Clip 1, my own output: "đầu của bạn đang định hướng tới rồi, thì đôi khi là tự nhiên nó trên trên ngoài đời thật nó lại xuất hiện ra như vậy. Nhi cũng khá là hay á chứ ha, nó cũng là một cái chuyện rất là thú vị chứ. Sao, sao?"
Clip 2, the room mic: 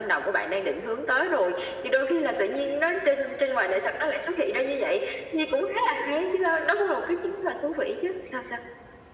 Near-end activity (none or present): none